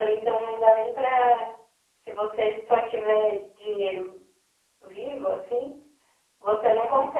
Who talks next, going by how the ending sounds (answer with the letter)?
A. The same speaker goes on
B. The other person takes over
A